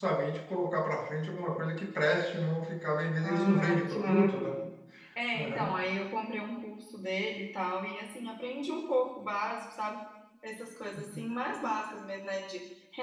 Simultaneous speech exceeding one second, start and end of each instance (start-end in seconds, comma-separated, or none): 3.2-4.6